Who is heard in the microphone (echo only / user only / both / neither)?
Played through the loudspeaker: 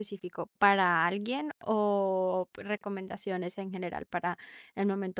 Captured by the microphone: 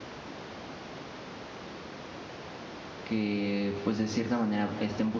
user only